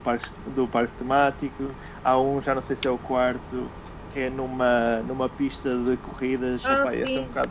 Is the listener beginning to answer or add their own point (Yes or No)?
No